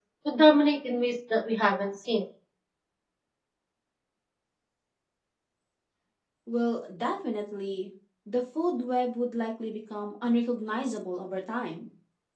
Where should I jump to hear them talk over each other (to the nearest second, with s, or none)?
none